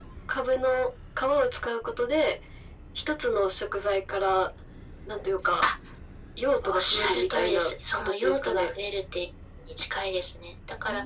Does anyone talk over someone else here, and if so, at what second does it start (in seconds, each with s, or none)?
6.6 s